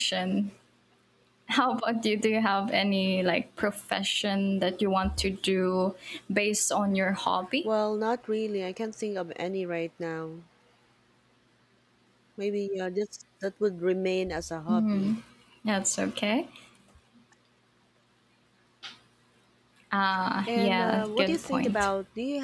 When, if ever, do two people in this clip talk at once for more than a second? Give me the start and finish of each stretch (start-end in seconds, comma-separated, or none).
20.5-21.9